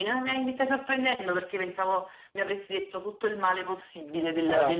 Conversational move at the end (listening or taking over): taking over